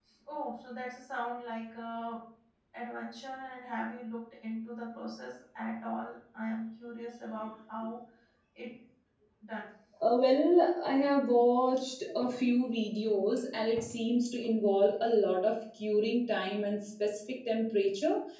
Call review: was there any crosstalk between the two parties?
No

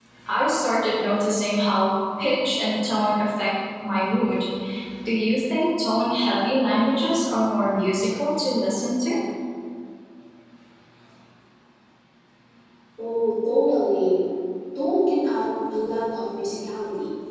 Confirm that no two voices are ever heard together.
Yes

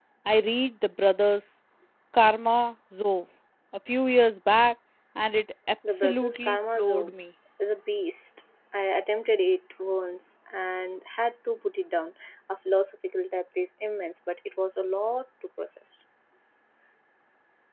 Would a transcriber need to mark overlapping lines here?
Yes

